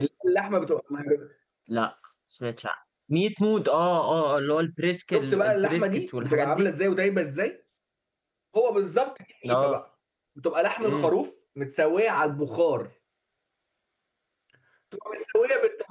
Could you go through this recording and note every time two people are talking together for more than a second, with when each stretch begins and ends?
5.2-6.7

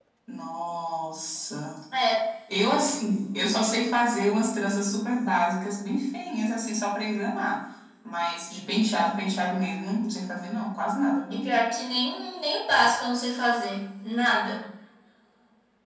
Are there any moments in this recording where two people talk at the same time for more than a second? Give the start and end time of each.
none

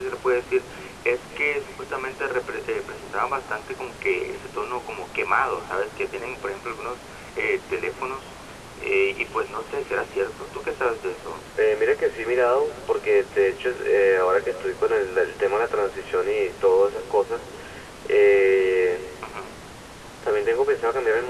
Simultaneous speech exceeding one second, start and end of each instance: none

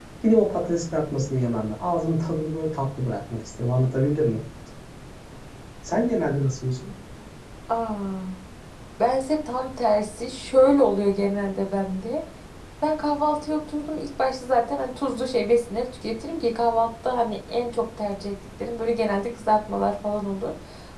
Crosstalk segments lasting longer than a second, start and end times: none

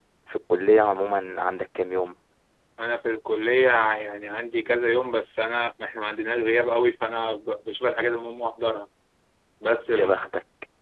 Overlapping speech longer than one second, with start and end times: none

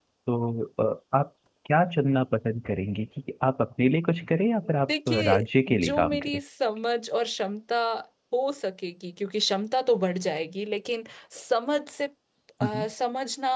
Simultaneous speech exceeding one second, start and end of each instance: 4.9-6.4

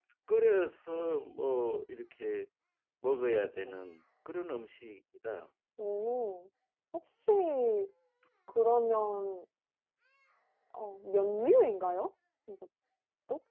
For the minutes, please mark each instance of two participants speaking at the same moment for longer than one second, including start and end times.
none

